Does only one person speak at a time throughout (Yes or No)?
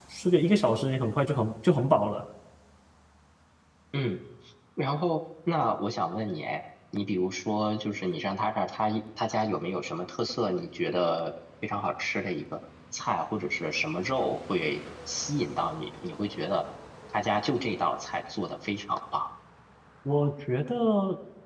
Yes